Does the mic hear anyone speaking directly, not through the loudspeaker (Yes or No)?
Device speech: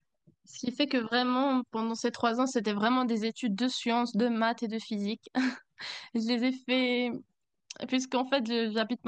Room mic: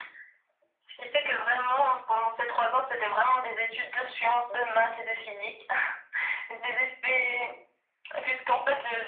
No